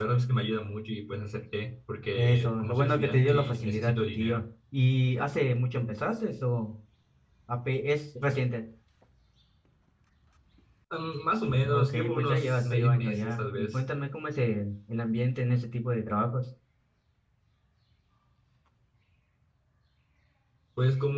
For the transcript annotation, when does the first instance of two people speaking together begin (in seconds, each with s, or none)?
2.2 s